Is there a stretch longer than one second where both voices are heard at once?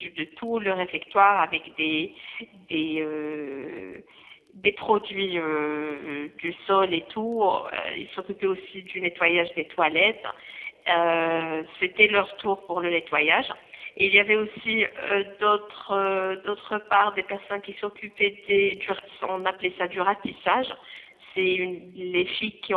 No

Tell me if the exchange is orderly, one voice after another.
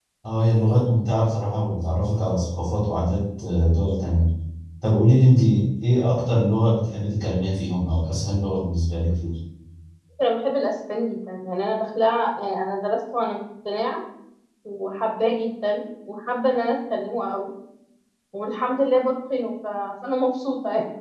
Yes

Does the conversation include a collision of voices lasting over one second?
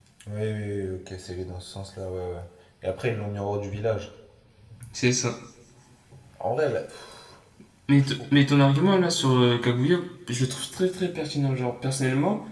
No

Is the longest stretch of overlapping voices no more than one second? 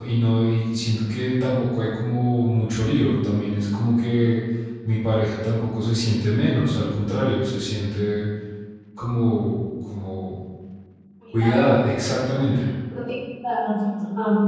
Yes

